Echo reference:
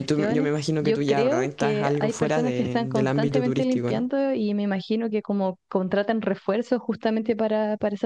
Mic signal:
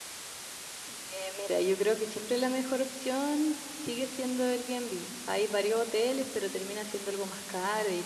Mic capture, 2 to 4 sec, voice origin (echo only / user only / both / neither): user only